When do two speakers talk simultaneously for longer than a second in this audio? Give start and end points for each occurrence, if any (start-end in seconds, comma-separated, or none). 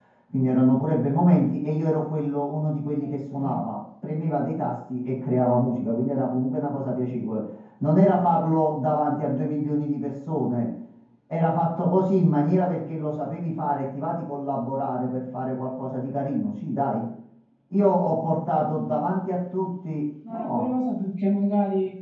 none